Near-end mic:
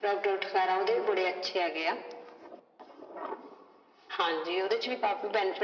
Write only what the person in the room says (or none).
none